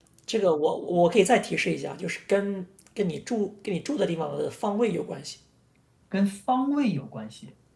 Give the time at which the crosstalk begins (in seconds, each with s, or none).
none